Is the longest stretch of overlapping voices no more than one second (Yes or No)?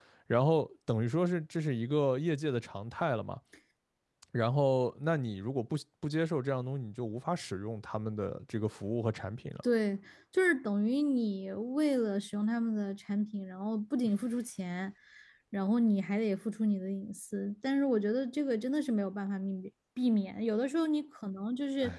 Yes